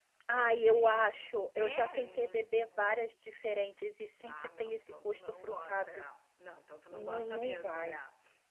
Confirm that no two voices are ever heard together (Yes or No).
No